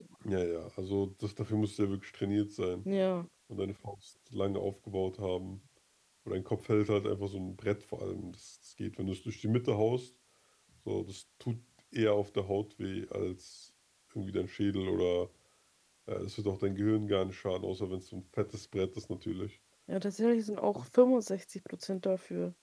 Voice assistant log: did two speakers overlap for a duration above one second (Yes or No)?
No